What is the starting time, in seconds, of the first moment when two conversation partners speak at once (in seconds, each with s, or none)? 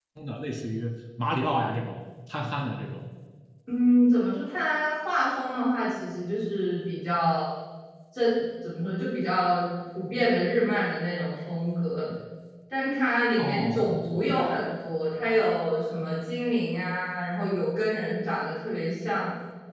13.4 s